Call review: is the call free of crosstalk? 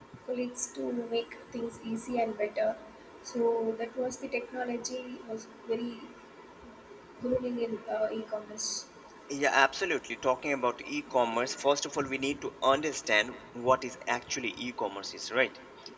Yes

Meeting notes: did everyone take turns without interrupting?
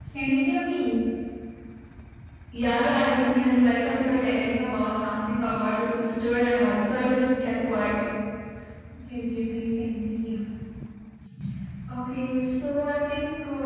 Yes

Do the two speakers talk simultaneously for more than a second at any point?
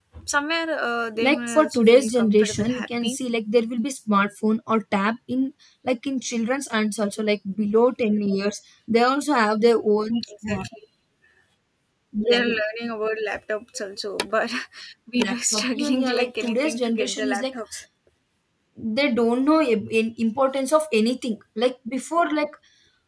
Yes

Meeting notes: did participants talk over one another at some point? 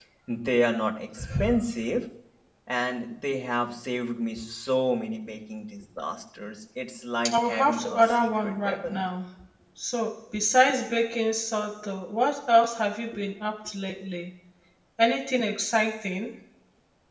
Yes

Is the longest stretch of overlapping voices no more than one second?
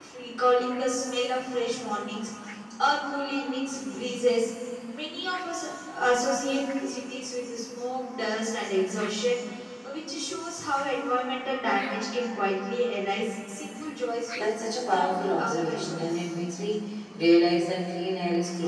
No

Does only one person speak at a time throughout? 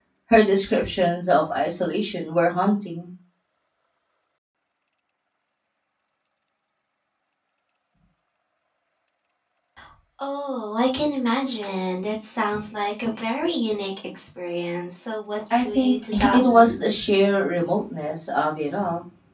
No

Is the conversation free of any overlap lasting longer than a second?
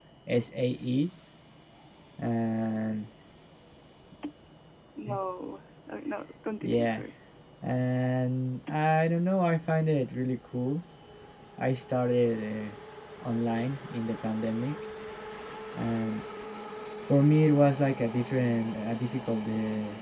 Yes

